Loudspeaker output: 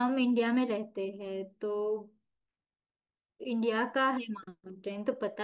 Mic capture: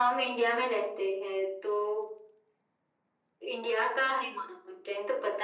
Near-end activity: none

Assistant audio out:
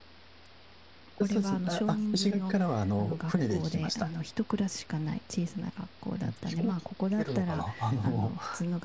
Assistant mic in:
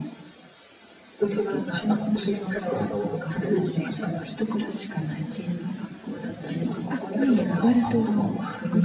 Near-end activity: present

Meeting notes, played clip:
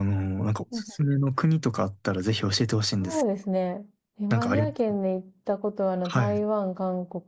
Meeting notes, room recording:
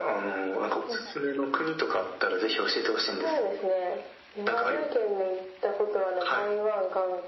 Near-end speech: none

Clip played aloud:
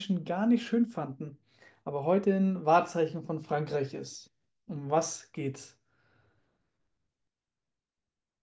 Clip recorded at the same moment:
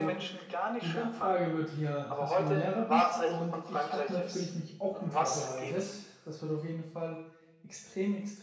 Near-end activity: present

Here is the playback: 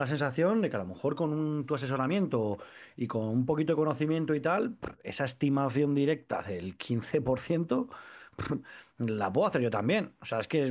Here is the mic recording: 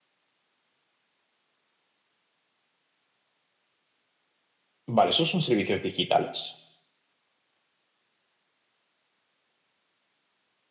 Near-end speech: present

